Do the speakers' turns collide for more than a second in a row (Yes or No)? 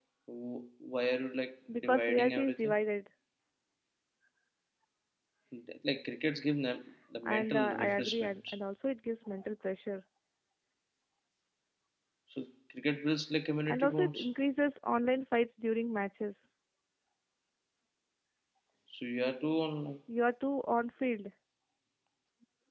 Yes